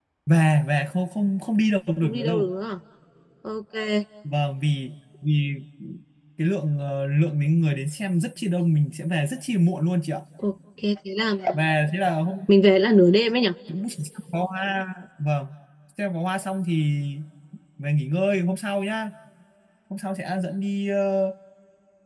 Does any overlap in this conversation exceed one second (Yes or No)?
No